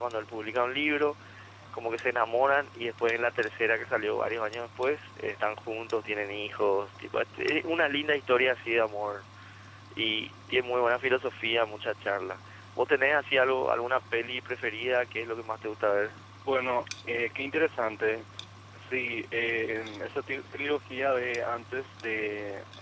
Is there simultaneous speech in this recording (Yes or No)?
No